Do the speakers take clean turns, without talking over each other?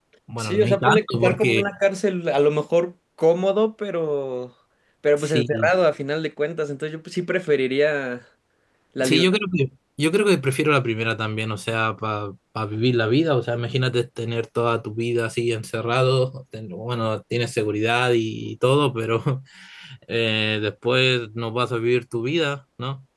No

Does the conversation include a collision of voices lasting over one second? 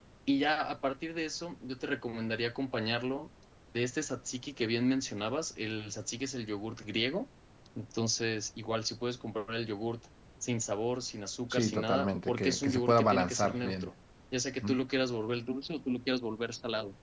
Yes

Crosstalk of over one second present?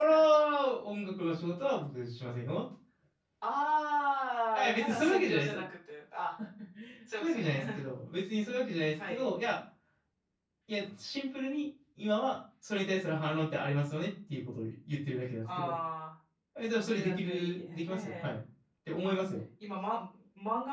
Yes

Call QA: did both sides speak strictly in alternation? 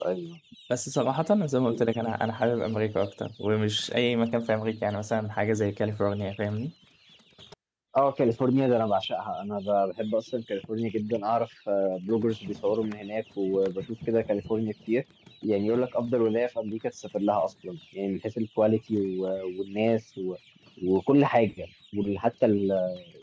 Yes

